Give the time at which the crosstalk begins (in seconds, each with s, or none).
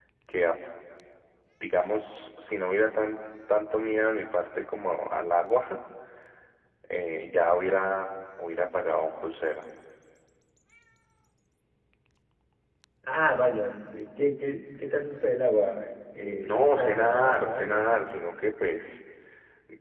16.4 s